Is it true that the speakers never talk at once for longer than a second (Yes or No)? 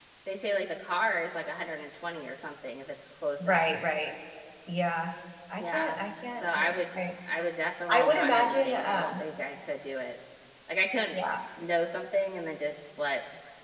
No